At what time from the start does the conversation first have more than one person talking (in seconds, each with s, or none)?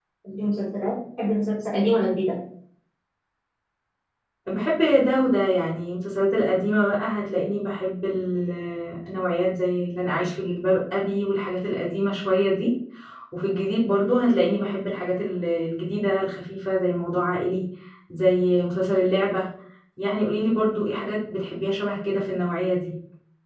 none